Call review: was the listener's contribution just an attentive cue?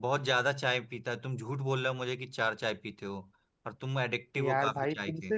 No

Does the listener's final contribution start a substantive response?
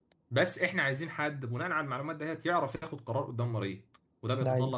No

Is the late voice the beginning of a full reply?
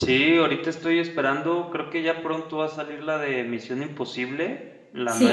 No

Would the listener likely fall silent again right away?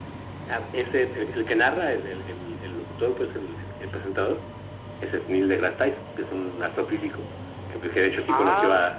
Yes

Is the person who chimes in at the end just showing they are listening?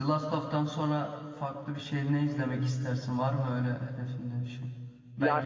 Yes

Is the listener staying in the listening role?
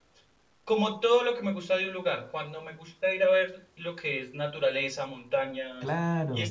Yes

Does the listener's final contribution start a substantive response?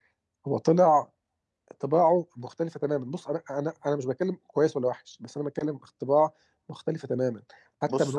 Yes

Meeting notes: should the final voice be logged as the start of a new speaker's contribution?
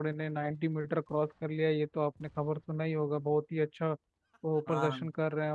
No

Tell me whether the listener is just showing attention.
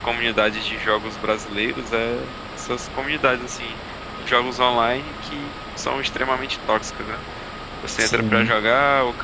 Yes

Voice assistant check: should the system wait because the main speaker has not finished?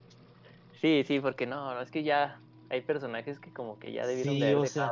No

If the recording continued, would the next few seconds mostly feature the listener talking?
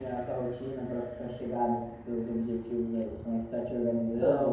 No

